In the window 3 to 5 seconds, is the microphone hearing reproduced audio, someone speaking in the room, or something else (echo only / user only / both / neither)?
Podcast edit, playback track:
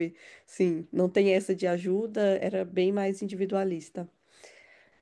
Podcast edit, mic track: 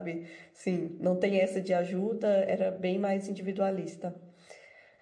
echo only